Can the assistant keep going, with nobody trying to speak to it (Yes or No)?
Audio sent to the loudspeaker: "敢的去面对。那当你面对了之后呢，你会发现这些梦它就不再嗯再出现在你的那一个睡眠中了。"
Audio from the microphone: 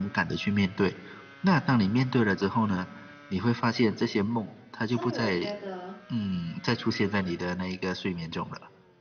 No